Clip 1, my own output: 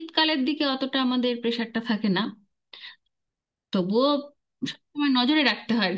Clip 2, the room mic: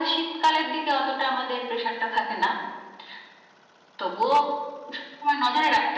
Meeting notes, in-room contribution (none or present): none